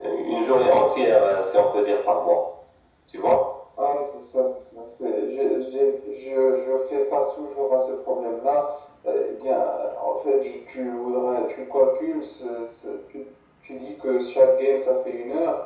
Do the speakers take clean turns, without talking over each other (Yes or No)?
Yes